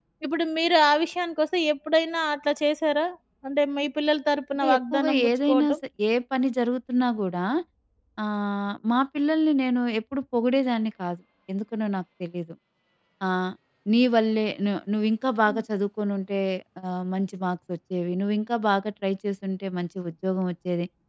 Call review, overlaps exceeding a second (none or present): present